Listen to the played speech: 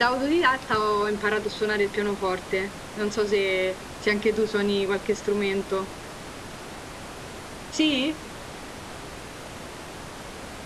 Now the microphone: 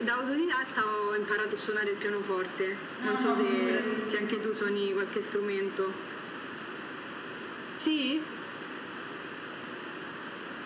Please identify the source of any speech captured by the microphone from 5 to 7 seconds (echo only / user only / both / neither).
echo only